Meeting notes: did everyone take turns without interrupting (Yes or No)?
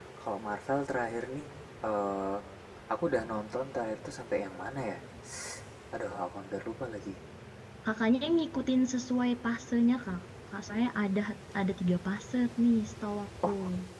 Yes